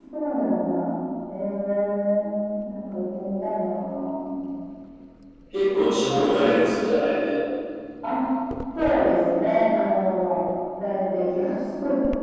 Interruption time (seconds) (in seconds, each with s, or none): none